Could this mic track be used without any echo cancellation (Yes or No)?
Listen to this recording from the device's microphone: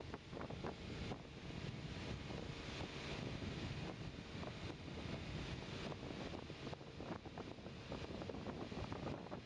Yes